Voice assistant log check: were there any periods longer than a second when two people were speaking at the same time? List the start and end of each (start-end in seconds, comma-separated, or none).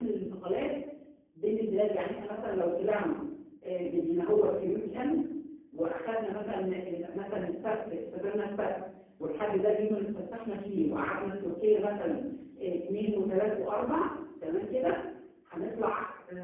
none